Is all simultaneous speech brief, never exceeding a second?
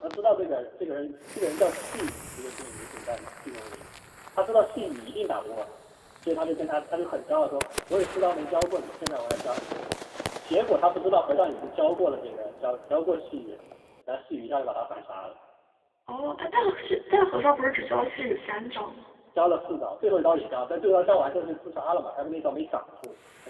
Yes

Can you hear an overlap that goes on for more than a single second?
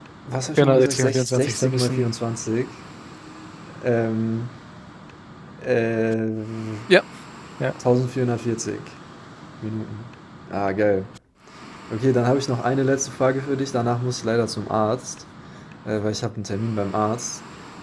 Yes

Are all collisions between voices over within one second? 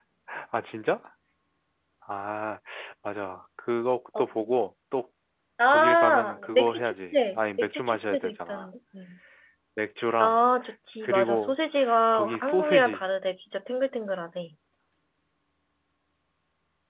No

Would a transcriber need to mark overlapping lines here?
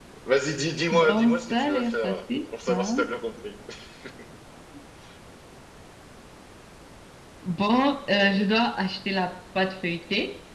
Yes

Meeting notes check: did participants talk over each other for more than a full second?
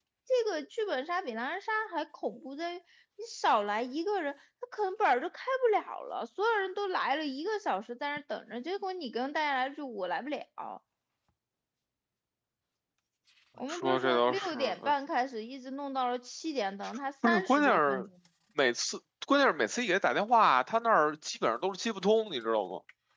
Yes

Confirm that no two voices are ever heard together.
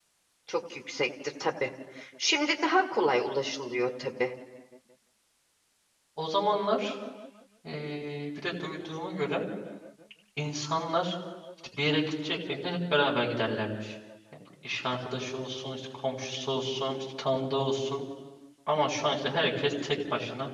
Yes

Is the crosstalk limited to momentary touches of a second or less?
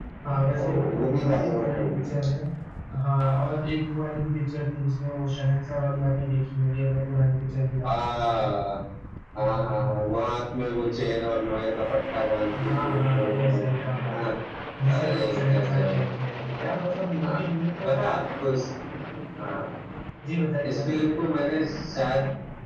No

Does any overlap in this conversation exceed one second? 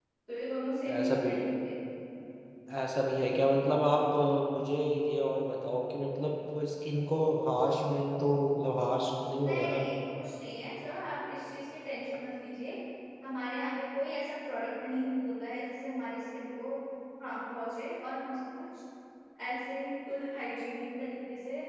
No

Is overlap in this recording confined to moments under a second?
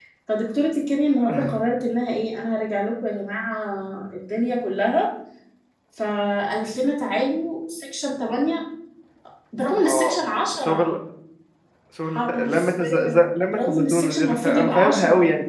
No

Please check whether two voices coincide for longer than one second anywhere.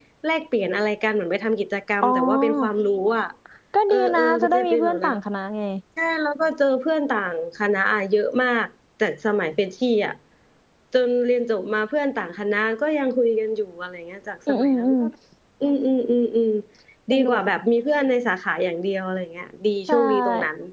Yes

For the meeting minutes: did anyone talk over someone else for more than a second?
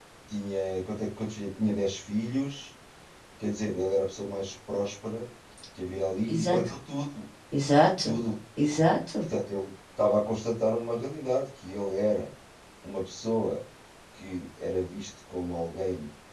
No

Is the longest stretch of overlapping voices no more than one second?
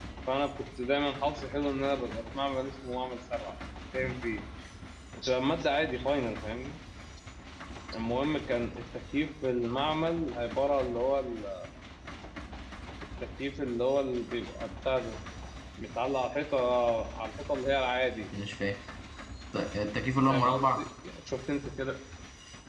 Yes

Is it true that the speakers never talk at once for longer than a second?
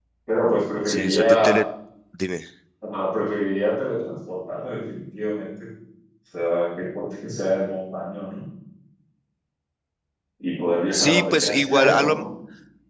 No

